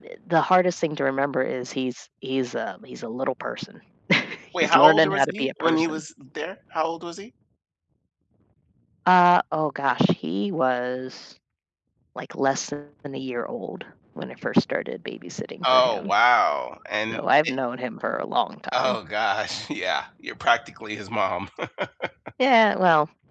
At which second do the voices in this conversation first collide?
4.6 s

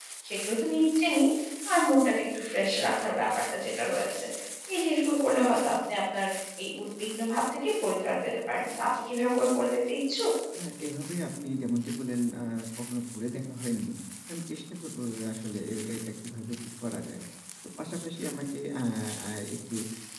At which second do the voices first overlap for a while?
none

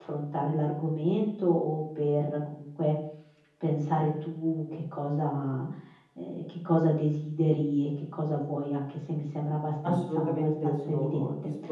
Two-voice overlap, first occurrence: 9.8 s

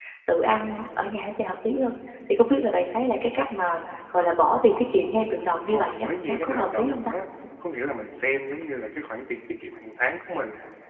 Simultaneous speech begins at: 5.6 s

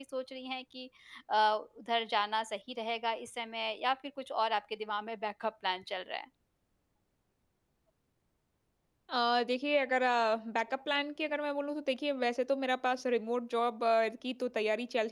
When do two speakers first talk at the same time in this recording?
none

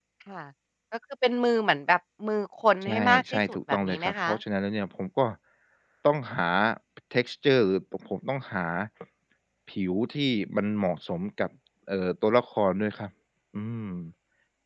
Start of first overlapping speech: 2.8 s

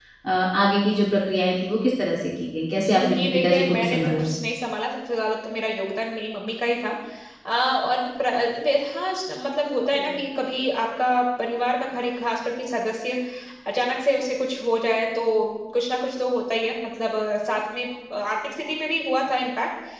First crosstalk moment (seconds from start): 2.8 s

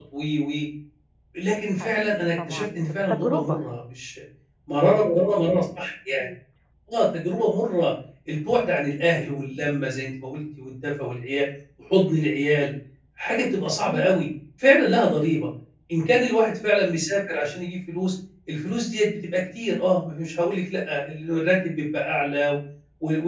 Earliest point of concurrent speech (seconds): 1.8 s

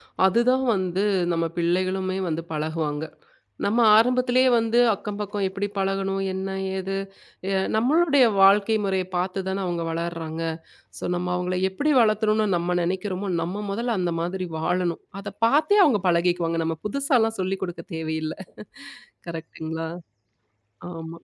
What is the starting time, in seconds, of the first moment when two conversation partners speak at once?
none

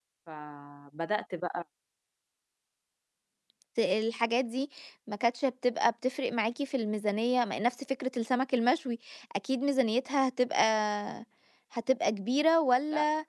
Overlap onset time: none

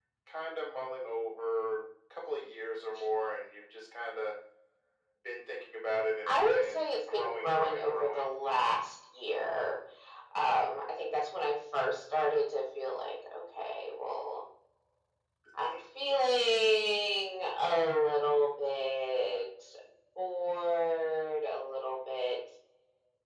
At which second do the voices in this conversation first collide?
6.3 s

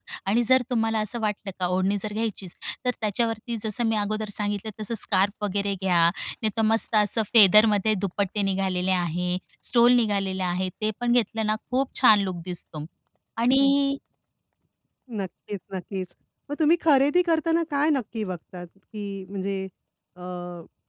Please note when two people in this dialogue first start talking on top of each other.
none

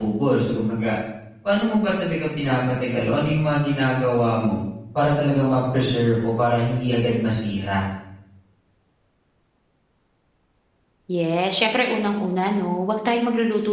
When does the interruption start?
none

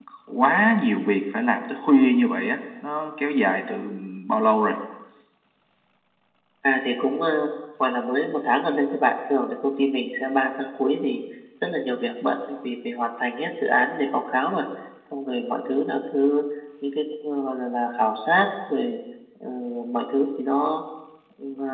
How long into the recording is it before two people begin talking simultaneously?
none

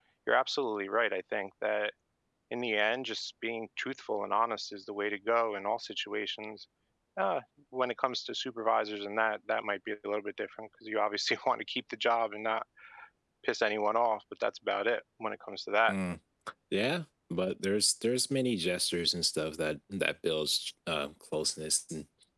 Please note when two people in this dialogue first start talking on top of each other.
none

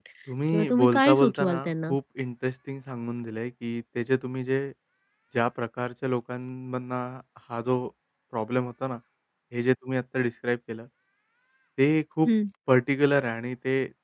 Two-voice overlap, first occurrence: 0.5 s

